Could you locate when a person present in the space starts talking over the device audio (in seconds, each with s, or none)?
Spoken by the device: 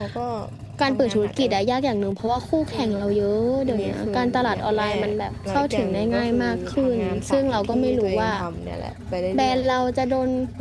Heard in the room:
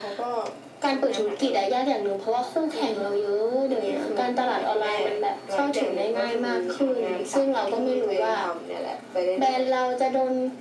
none